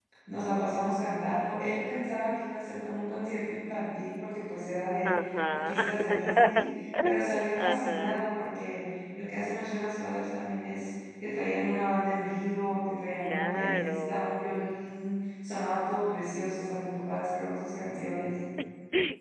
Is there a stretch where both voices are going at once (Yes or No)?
Yes